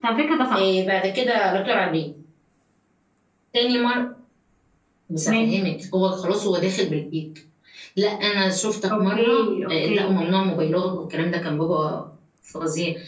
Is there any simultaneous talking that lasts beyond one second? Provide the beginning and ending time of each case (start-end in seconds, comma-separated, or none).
9.0-10.3